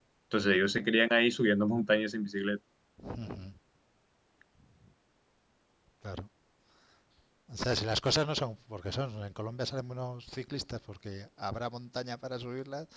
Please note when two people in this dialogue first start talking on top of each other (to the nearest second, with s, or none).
none